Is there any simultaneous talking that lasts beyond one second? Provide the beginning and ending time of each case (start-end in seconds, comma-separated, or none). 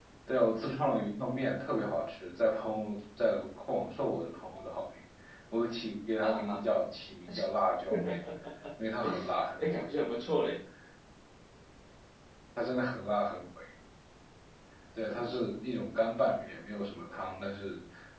none